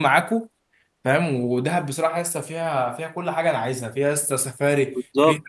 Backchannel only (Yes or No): Yes